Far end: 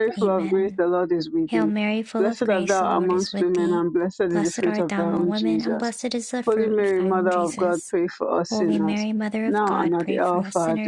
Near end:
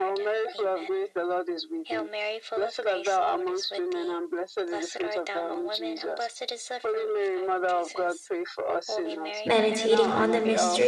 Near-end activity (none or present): present